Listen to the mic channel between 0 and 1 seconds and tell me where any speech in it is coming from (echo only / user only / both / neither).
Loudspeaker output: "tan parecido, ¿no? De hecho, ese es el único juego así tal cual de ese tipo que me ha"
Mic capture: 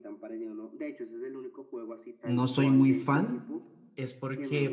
echo only